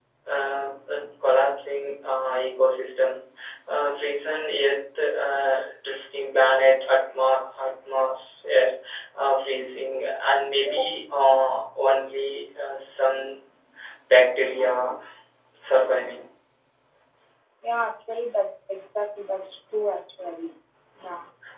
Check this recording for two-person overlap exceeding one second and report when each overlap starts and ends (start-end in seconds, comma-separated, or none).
none